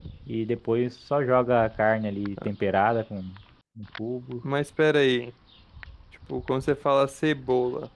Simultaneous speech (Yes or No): No